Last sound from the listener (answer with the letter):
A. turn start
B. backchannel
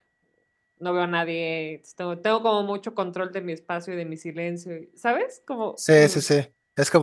A